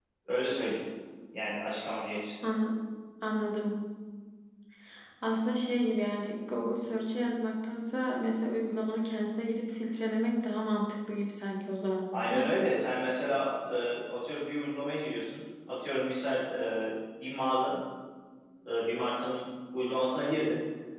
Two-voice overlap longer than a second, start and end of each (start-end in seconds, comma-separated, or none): none